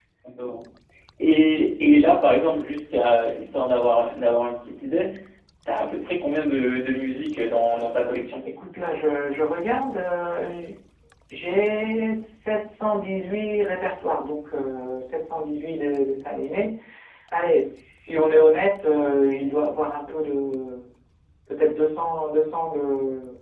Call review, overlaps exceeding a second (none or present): none